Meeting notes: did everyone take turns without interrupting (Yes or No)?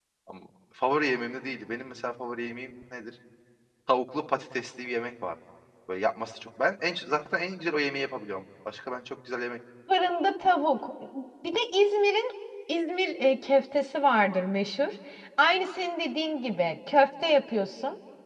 Yes